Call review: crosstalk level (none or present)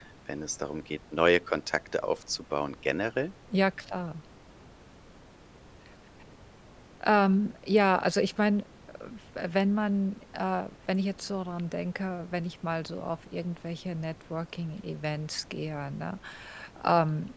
none